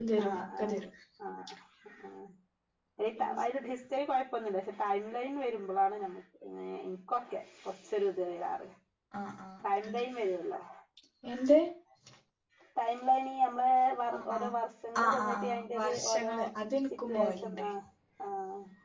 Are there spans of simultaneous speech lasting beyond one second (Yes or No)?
Yes